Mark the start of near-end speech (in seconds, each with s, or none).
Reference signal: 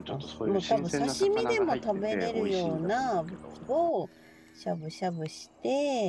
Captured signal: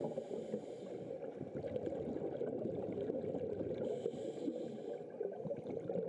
none